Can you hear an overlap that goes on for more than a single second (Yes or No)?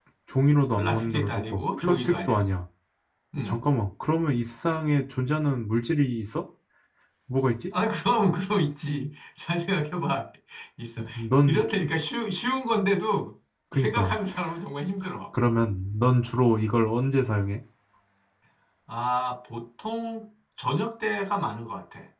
Yes